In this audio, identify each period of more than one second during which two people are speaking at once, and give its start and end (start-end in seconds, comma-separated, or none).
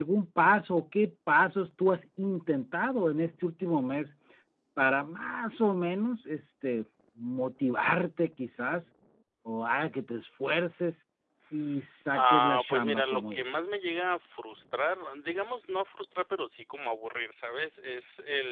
12.1-13.8